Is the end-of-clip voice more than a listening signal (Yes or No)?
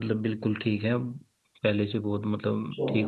Yes